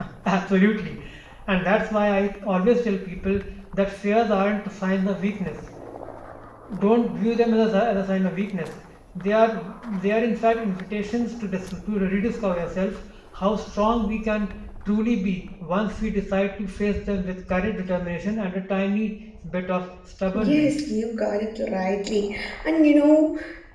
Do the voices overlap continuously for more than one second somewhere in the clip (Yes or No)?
No